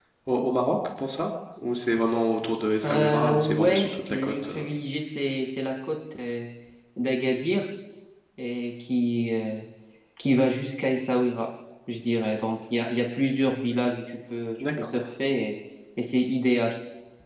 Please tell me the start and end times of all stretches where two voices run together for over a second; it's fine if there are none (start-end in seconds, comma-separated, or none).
2.9-4.6